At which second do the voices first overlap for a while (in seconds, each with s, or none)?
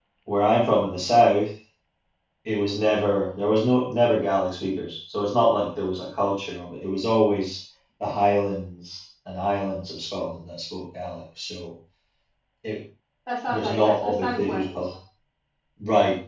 13.5 s